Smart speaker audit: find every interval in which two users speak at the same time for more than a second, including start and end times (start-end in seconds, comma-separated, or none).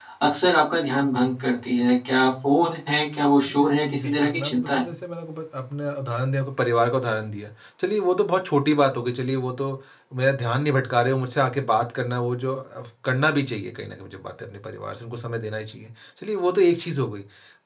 3.5-4.8